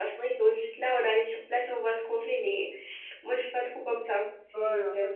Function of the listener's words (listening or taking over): taking over